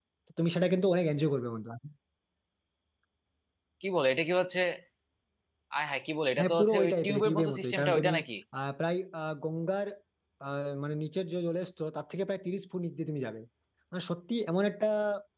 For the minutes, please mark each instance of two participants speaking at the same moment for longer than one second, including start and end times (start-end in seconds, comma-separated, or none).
6.4-8.1